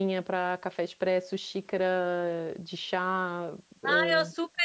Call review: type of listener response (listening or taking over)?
taking over